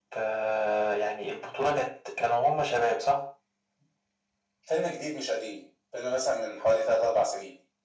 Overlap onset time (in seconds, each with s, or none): none